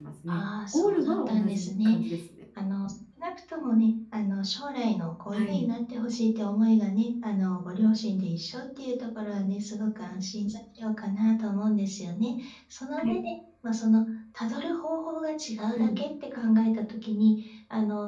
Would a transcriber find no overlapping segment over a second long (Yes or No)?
No